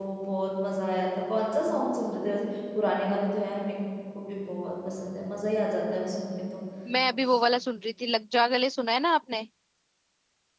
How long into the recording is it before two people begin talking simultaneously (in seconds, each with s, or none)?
none